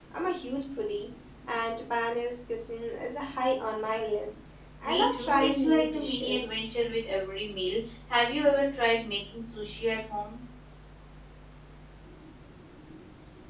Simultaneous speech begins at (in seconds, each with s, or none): 4.8 s